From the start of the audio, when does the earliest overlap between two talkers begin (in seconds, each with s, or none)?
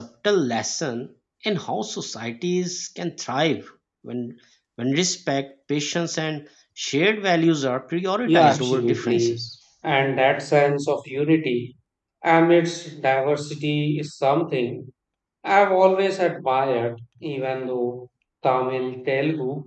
8.3 s